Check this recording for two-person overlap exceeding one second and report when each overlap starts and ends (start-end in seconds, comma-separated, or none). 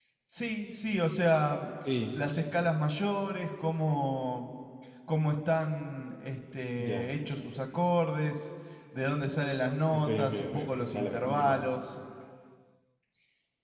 9.9-11.6